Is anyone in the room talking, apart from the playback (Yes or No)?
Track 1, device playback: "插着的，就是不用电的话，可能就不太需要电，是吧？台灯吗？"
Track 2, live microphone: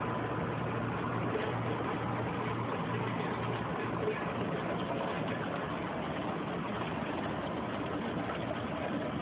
No